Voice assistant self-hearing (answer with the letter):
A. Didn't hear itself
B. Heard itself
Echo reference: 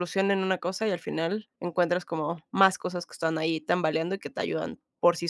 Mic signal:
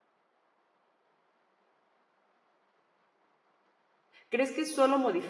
A